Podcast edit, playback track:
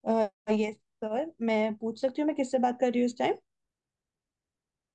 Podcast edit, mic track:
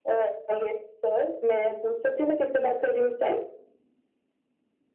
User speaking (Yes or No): No